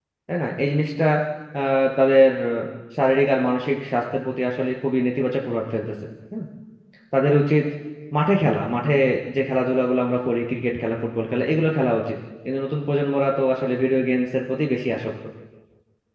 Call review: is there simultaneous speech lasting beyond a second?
No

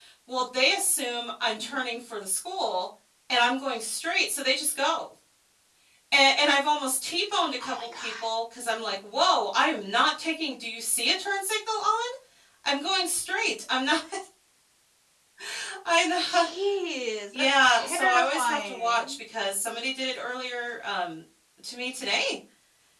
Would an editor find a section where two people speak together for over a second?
Yes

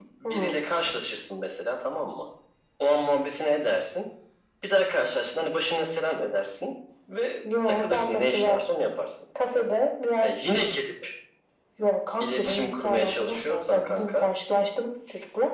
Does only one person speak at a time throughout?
No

